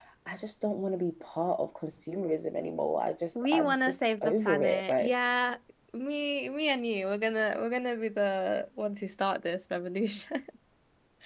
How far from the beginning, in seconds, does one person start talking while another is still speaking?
3.4 s

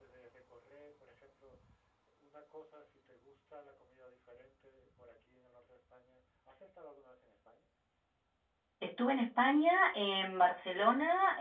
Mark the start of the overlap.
none

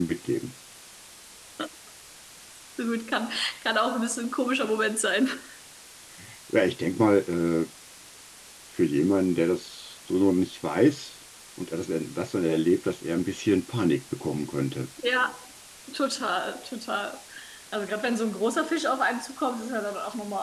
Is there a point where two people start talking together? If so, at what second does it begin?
none

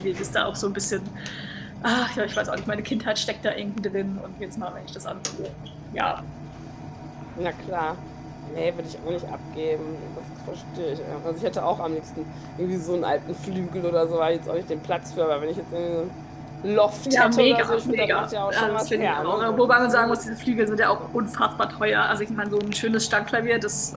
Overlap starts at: 17.0 s

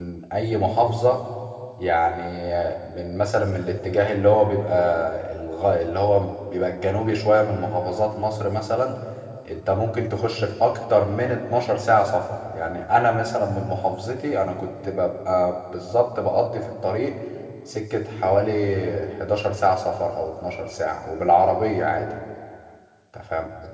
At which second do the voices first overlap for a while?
none

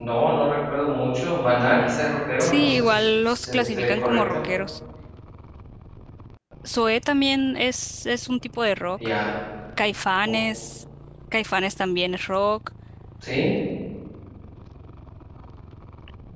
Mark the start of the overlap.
2.4 s

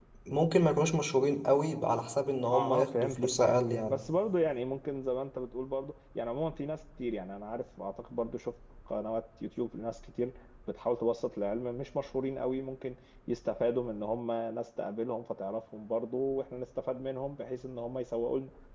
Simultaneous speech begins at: 2.5 s

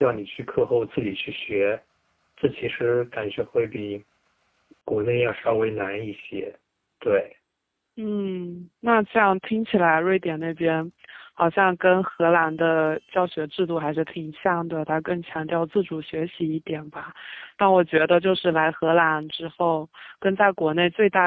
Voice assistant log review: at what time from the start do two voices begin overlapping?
none

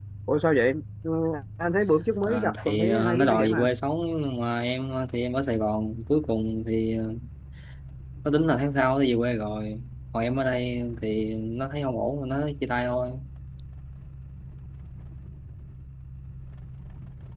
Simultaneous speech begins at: 2.2 s

